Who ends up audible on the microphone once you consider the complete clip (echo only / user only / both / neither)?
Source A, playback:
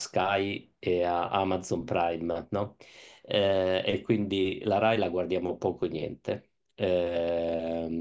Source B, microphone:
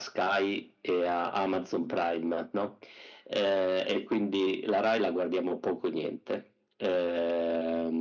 echo only